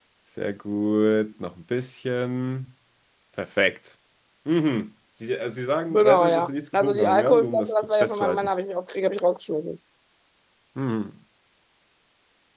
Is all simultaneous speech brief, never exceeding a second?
No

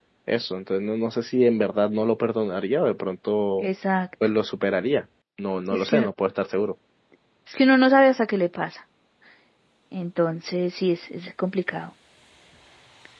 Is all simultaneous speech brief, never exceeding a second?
Yes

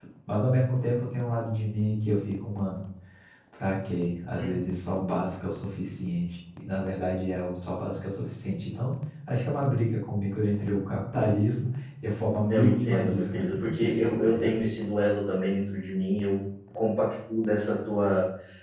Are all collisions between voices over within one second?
No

